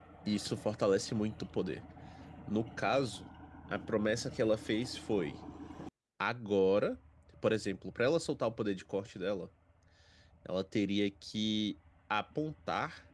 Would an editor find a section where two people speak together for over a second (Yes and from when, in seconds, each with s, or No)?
No